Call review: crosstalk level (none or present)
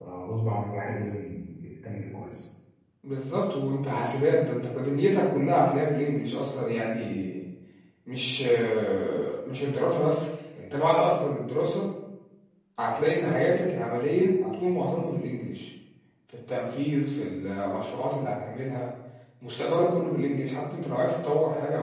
none